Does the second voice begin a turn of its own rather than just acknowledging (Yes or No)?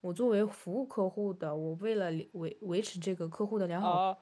Yes